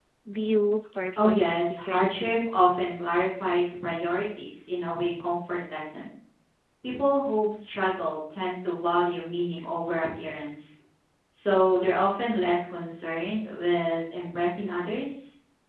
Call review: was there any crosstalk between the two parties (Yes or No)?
Yes